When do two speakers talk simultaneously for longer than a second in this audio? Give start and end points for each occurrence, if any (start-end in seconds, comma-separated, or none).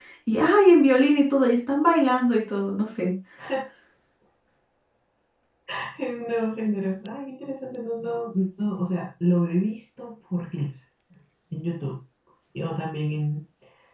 none